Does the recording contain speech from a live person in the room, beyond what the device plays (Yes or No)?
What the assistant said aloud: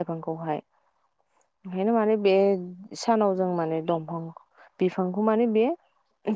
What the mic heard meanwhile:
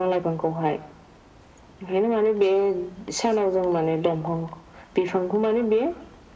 No